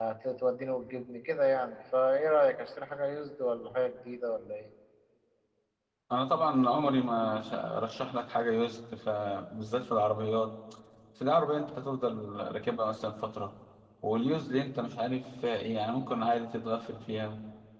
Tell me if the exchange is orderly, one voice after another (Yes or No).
Yes